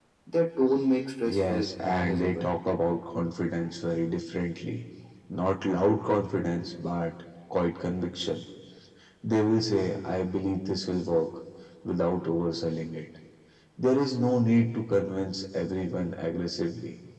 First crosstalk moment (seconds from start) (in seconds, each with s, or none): 1.3 s